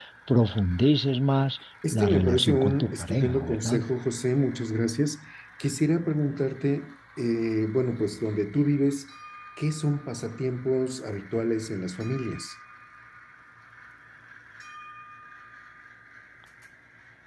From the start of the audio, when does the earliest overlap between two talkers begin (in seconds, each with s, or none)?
1.8 s